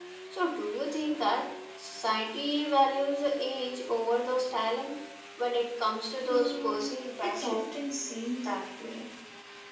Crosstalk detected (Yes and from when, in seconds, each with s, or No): Yes, from 6.2 s